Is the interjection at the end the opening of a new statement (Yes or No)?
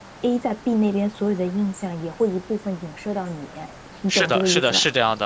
Yes